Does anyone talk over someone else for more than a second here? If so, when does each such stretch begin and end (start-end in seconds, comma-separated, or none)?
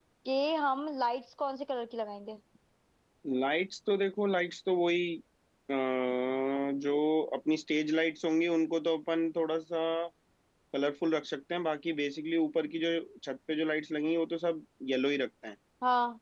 none